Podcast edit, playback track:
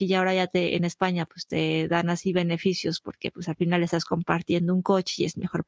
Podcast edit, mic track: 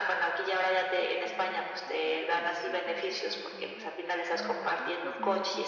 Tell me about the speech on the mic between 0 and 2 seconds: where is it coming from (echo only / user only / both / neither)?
both